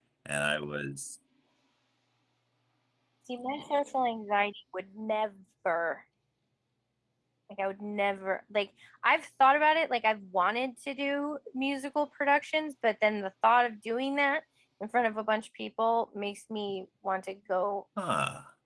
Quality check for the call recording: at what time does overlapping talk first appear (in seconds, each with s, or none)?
none